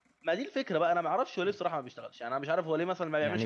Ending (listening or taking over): taking over